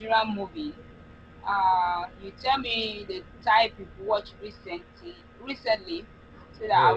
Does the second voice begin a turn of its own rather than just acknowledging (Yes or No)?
Yes